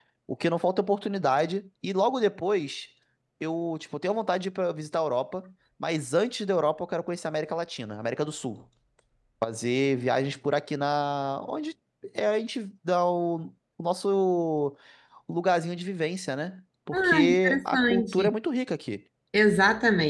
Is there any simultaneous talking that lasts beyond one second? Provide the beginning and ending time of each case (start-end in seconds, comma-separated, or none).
16.9-18.3